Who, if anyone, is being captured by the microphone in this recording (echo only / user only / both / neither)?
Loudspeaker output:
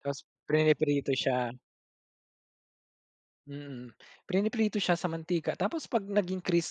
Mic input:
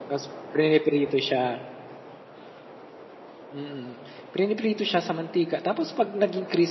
echo only